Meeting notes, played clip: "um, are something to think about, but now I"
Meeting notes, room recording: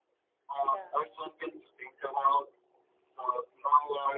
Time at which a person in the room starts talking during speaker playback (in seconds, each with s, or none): 0.7 s